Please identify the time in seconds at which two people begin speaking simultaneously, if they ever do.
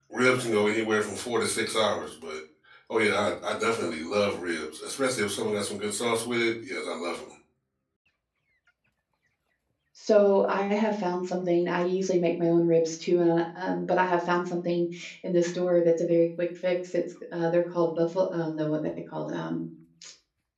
none

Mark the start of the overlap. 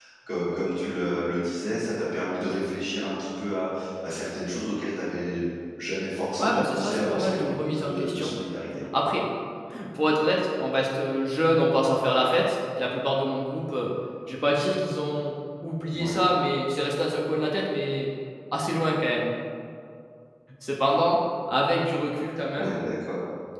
6 s

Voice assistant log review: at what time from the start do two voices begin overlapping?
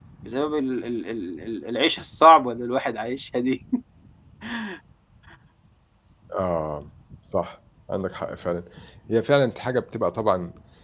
none

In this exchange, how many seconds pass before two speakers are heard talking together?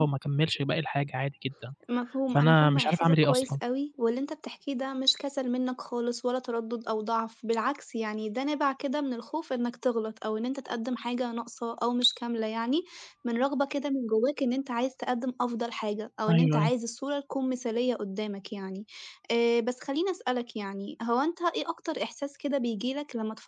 2 s

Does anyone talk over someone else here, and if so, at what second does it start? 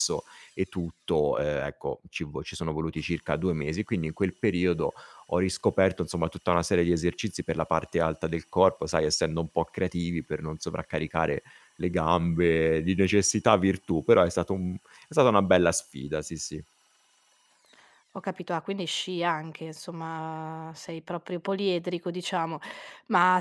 none

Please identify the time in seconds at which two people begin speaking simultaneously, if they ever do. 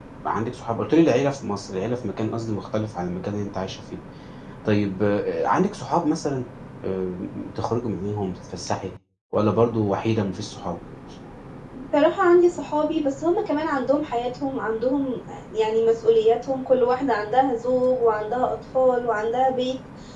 none

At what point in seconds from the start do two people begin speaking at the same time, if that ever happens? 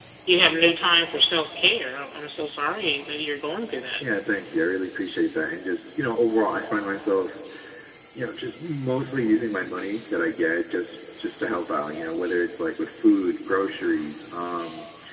none

